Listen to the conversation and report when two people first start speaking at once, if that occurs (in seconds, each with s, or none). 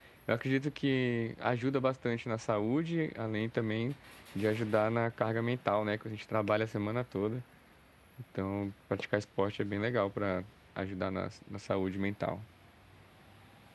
none